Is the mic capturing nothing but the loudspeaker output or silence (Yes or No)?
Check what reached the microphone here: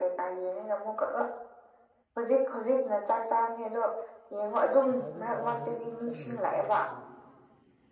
No